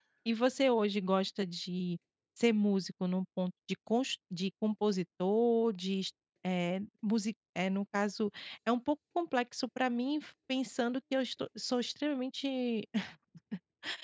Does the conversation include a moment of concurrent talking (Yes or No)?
No